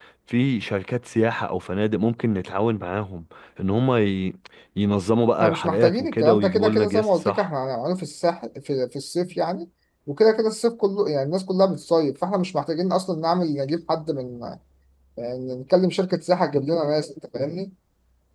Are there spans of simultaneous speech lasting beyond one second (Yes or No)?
Yes